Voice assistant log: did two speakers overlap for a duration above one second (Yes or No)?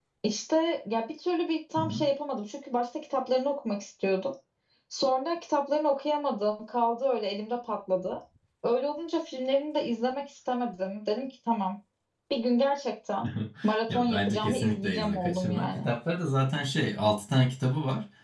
Yes